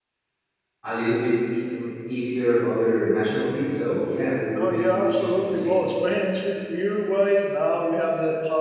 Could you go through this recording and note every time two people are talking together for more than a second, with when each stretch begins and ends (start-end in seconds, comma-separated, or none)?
4.5-5.7